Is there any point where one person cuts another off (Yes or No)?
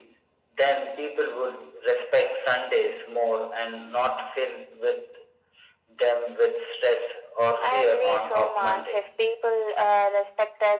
Yes